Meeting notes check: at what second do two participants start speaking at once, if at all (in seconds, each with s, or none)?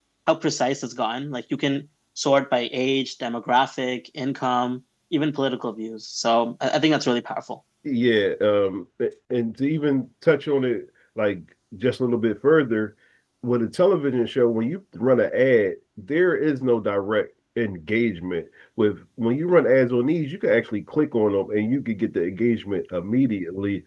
none